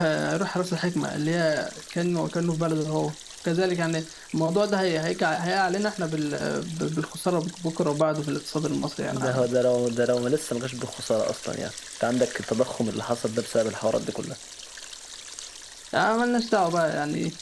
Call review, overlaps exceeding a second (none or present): none